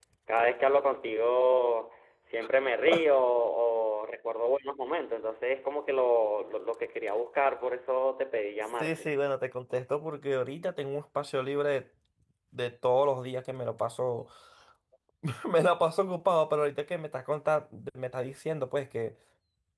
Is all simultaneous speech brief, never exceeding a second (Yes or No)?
Yes